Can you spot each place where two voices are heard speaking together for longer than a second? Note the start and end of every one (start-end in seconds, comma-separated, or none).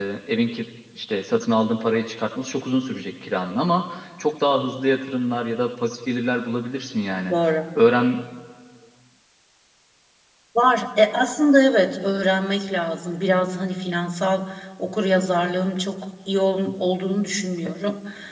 none